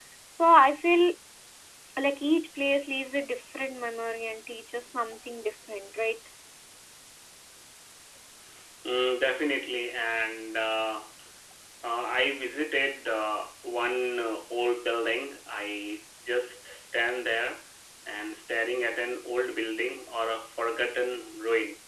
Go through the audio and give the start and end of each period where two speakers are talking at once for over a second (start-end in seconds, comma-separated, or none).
none